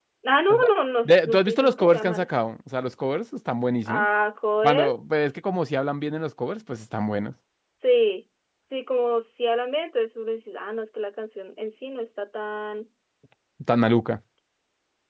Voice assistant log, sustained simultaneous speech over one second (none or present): present